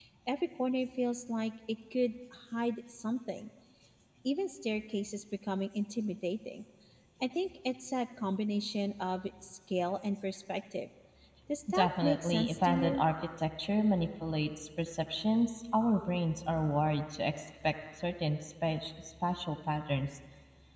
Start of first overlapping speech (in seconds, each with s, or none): 11.7 s